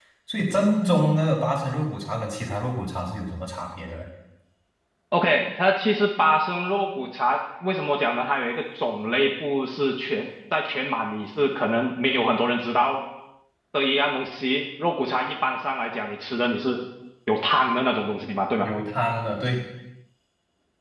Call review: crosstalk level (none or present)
none